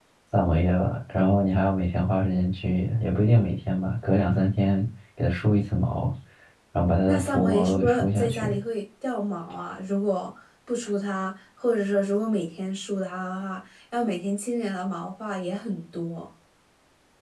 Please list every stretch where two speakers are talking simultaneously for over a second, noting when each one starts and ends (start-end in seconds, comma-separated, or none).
7.1-8.6